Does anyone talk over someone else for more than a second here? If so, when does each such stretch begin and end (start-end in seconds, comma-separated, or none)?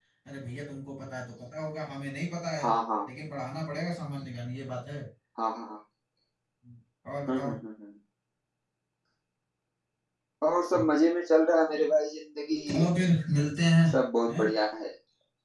none